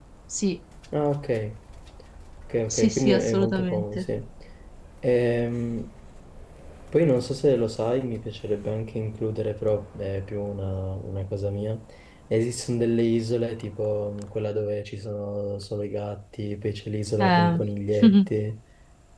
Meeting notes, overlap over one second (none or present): present